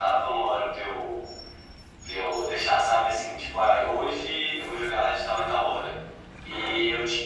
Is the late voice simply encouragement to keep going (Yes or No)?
Yes